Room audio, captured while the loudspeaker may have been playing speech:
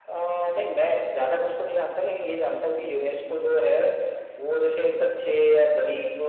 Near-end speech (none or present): none